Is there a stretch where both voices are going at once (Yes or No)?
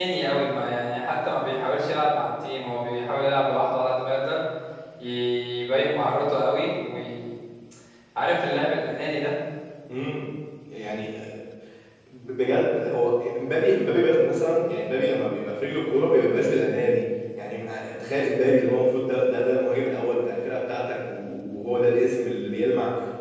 No